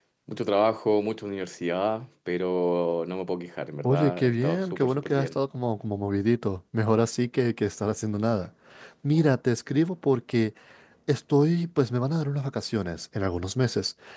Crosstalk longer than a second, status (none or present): present